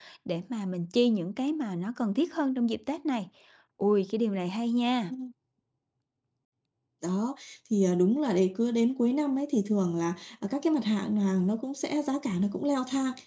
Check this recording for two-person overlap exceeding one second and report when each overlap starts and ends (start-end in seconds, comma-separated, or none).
none